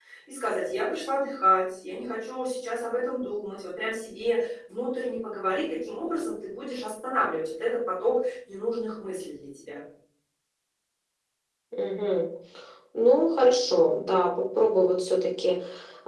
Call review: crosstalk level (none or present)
none